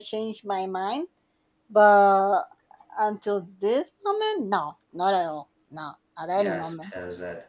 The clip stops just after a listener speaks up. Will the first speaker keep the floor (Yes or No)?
No